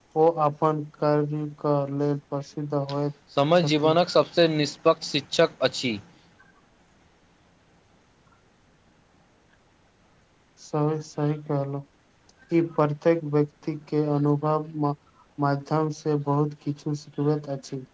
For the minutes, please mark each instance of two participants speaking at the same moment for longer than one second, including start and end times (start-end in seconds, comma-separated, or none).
none